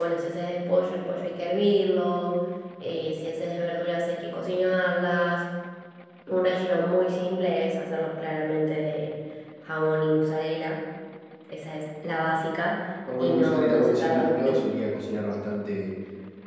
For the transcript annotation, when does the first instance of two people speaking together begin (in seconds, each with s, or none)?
13.1 s